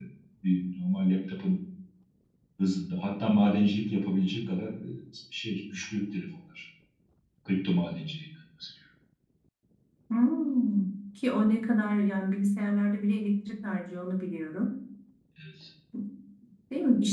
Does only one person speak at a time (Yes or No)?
Yes